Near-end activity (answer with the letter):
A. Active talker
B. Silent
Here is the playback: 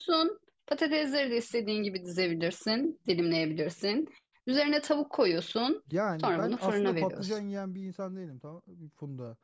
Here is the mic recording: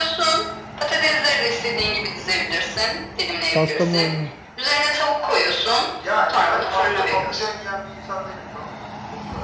A